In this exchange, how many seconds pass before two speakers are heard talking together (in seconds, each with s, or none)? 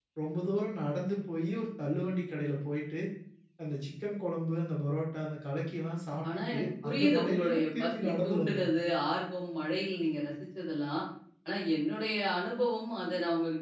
6.2 s